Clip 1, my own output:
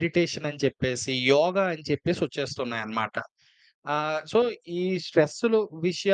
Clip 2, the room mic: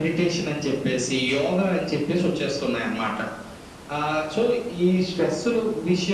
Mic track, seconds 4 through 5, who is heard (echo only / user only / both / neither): echo only